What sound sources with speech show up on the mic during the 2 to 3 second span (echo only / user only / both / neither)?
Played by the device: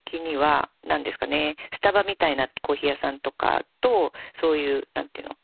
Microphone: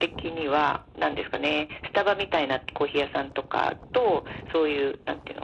echo only